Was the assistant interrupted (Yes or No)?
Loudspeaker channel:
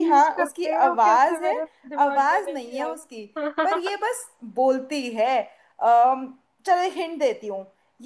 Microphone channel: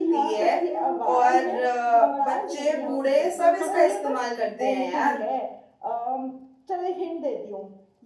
Yes